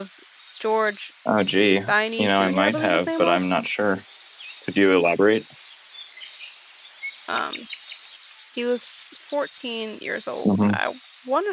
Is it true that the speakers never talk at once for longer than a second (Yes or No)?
No